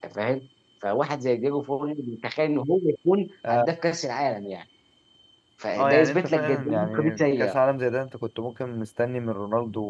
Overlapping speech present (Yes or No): Yes